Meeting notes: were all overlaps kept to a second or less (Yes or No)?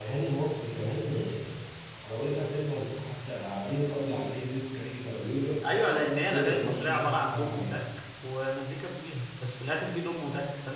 No